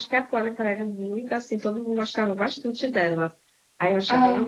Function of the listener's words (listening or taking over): listening